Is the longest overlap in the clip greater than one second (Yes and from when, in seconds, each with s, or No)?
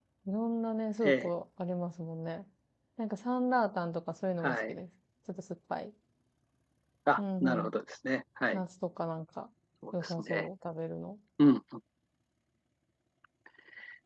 No